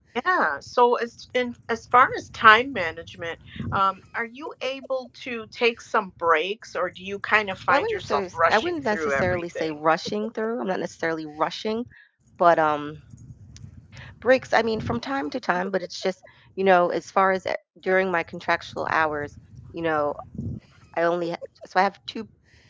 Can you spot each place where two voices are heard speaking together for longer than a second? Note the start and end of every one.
7.7-9.7

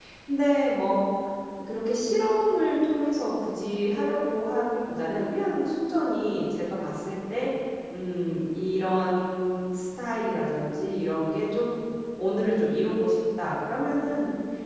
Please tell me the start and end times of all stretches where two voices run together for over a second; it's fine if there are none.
none

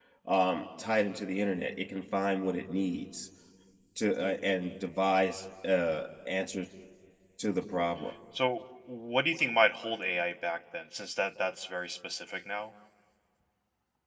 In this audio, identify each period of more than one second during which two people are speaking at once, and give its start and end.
none

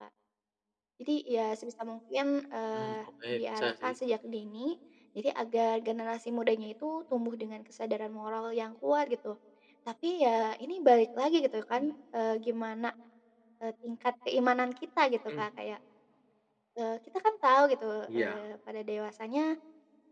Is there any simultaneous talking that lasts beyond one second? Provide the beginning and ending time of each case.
2.7-3.9

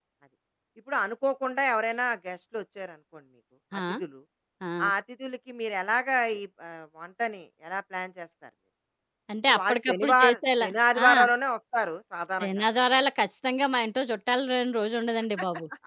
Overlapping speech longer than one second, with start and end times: 9.5-10.7

